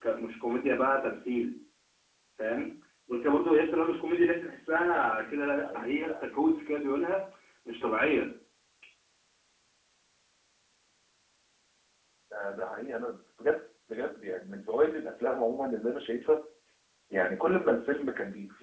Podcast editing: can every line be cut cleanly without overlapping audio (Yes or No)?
No